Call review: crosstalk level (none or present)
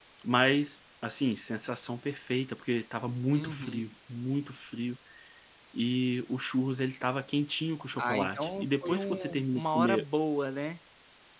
present